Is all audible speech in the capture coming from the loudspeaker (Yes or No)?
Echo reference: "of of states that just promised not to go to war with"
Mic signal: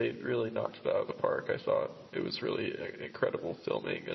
No